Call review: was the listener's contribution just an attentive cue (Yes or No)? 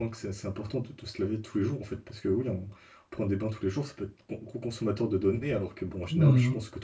No